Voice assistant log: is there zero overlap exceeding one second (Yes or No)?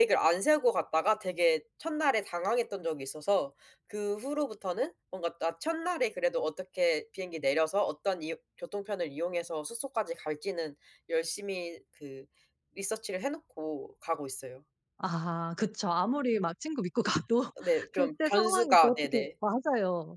No